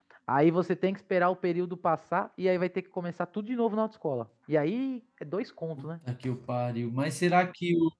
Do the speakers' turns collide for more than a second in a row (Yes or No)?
No